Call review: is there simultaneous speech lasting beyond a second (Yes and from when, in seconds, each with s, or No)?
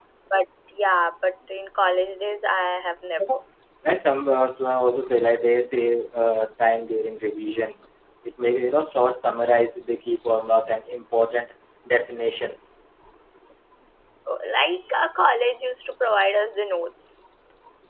No